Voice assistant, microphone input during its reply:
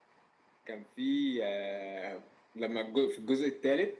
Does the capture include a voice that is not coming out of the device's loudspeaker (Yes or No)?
No